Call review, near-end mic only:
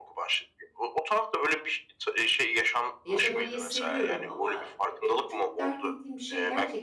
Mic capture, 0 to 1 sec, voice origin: echo only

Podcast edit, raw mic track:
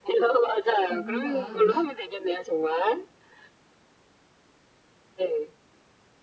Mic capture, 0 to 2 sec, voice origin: both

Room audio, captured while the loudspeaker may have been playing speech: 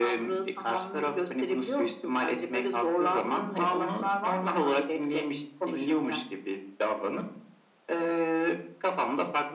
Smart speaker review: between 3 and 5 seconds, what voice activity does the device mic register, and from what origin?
echo only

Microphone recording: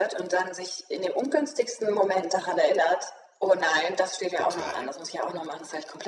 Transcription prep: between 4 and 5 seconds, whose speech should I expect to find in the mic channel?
both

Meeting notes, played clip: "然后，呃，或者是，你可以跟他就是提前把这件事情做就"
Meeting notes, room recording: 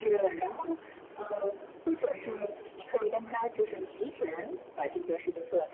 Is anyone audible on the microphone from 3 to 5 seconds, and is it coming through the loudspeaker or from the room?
echo only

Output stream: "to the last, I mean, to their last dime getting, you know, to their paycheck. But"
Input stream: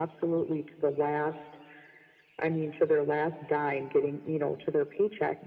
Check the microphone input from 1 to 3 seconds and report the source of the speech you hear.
echo only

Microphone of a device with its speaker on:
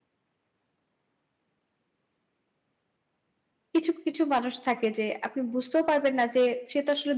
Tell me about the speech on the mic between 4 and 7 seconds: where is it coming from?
user only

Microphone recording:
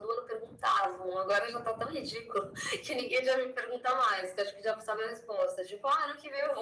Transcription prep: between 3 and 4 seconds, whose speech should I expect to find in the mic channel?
echo only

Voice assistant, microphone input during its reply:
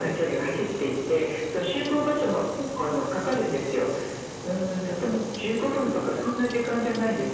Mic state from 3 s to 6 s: echo only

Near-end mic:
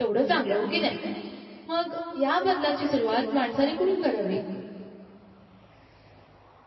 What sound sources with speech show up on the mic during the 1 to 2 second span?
user only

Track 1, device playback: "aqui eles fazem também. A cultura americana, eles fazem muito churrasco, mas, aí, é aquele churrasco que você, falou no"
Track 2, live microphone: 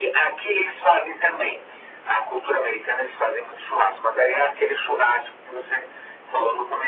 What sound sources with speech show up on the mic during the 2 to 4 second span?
echo only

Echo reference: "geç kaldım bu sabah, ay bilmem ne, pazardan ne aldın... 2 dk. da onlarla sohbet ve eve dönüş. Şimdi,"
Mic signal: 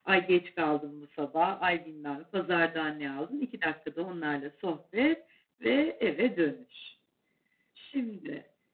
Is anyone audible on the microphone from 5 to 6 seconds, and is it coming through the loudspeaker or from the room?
echo only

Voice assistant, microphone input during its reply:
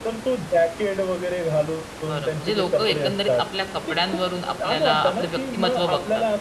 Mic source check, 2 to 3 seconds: both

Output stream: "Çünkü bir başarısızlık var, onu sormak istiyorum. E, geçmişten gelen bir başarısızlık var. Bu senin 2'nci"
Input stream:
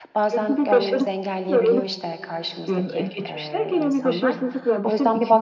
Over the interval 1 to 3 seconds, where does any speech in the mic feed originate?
both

